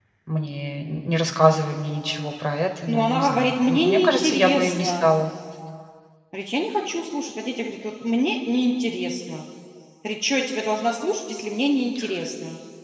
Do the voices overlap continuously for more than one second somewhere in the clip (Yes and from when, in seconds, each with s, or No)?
Yes, from 2.9 s